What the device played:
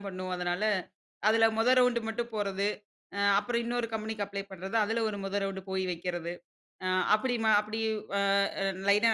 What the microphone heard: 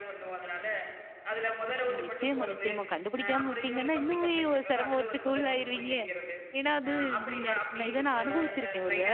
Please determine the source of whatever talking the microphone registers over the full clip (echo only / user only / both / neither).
both